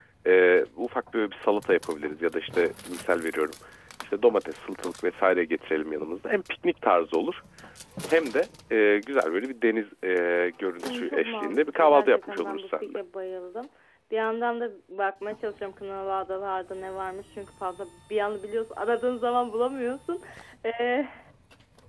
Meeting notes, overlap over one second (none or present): present